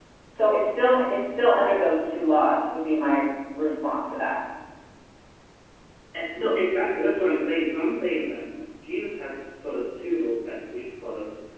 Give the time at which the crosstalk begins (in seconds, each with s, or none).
none